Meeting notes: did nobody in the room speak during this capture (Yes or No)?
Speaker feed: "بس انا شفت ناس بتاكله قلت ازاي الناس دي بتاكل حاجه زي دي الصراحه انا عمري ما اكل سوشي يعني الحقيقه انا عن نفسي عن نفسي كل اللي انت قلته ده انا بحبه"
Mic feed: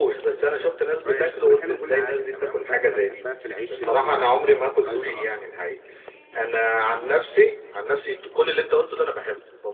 No